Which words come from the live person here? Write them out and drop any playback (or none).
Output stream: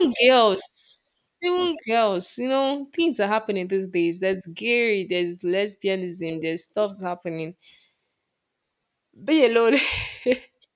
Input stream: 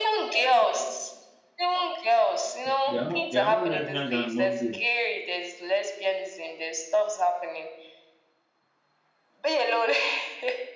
There there are more there are more lesbians than more gay.